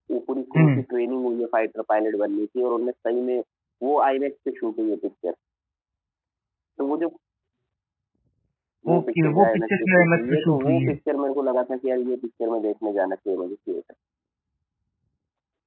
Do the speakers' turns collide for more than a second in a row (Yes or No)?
Yes